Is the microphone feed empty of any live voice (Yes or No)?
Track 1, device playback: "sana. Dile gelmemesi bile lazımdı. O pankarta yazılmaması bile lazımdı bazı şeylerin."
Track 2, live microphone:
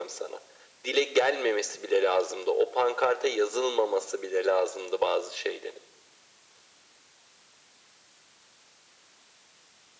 Yes